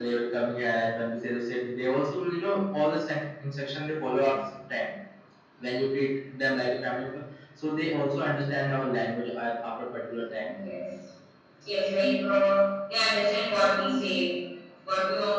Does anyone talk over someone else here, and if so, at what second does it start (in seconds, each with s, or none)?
none